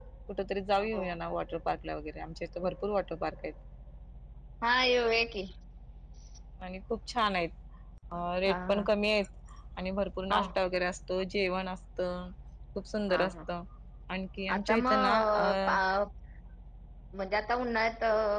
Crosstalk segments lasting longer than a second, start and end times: 14.6-15.8

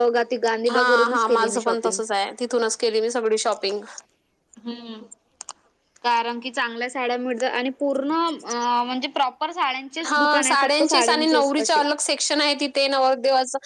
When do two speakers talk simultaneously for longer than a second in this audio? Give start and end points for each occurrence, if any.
0.7-2.0, 10.0-11.8

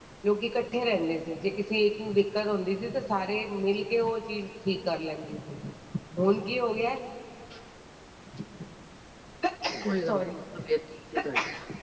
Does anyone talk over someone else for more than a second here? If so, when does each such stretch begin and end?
none

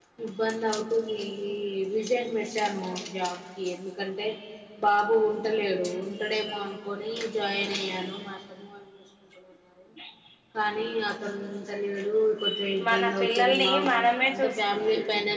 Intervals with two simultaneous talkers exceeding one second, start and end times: 12.9-14.3

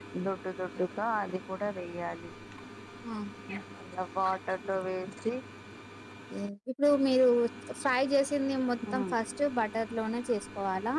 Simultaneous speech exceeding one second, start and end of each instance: none

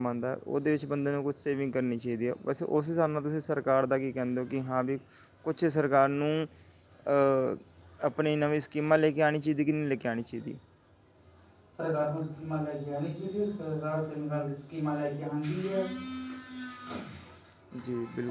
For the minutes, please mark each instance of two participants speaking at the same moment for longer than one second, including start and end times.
none

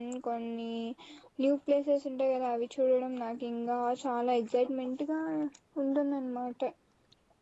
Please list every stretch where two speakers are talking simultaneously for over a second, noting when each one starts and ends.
none

